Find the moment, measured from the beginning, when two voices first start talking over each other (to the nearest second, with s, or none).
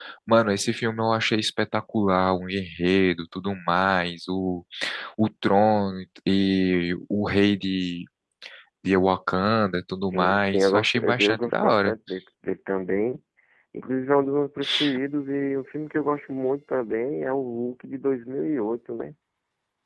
10 s